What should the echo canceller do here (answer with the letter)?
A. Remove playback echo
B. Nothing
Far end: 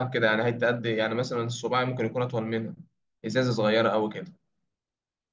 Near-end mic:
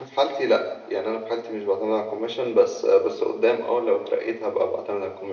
B